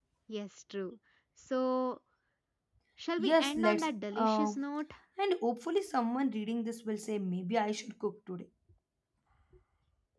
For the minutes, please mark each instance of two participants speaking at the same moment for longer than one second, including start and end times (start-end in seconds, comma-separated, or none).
3.3-4.5